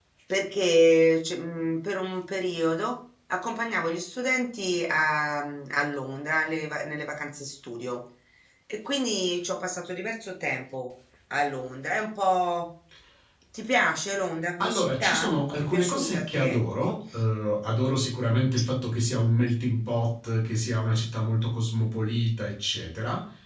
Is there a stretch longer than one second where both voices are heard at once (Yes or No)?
Yes